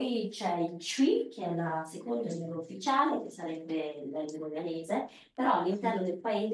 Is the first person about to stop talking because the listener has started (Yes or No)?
No